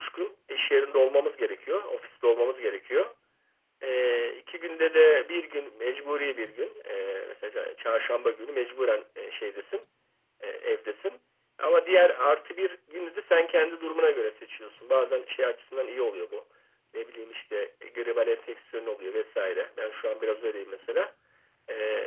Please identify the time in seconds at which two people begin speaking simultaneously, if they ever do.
none

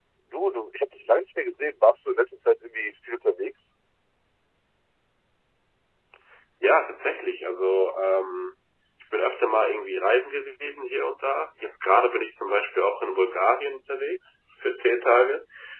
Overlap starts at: none

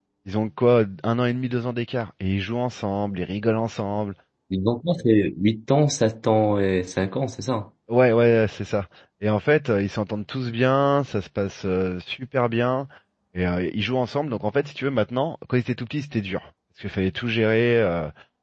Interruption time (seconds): none

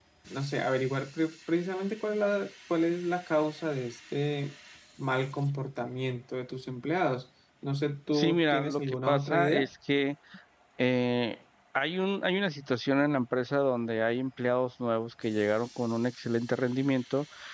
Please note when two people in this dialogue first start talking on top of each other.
8.1 s

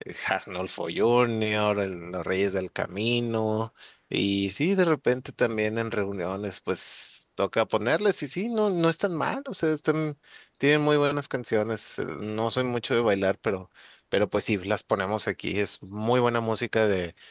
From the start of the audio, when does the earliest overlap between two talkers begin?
none

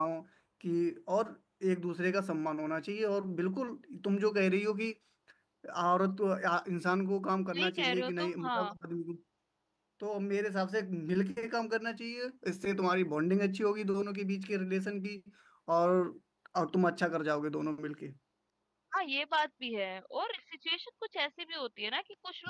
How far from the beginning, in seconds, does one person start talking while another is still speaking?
7.5 s

